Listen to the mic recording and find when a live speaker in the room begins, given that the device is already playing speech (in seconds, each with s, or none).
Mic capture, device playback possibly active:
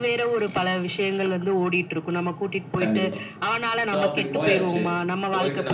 2.8 s